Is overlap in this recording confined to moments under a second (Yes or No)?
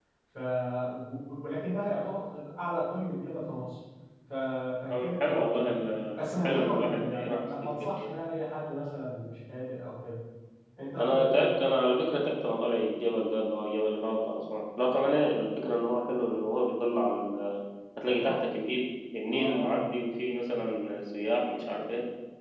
No